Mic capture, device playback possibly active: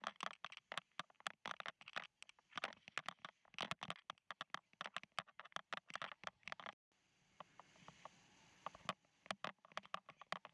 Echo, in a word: none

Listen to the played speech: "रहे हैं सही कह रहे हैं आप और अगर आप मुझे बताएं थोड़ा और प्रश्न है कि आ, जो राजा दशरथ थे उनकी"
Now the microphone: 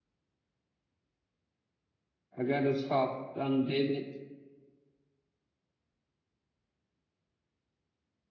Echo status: none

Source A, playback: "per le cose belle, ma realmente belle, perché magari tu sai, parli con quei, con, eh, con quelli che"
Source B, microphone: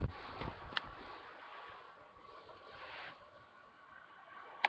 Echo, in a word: none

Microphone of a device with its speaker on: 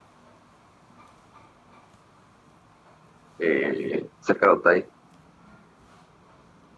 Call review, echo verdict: none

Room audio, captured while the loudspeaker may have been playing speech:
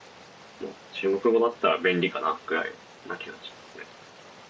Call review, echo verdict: none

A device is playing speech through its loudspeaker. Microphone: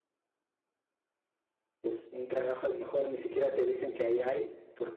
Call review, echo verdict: none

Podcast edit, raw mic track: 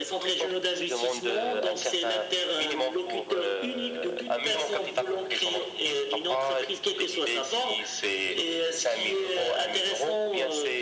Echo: present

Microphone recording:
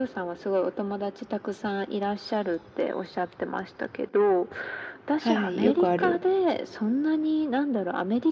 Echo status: present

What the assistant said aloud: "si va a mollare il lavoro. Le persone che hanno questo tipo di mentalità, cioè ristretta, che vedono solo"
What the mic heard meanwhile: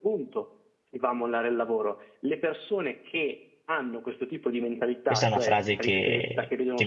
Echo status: present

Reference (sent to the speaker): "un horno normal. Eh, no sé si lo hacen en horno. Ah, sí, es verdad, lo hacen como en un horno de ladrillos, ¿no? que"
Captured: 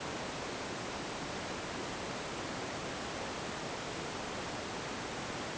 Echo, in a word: none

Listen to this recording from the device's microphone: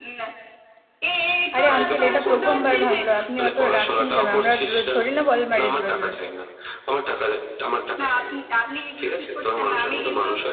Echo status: present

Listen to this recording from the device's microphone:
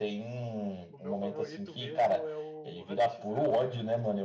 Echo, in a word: present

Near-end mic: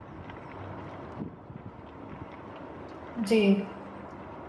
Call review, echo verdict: none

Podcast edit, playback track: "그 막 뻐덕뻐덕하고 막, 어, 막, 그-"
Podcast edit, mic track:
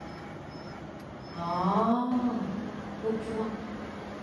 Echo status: none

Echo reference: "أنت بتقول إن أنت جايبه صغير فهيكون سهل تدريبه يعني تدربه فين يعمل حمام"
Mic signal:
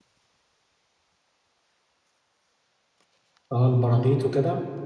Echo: none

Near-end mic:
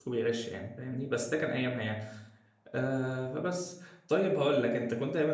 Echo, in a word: none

